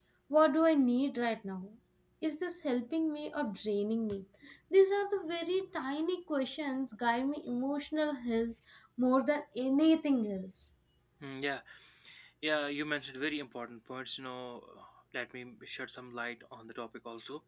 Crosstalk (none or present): none